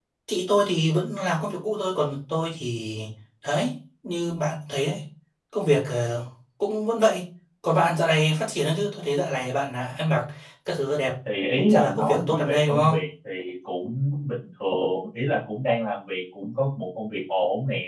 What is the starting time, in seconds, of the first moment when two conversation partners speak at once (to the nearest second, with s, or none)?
12 s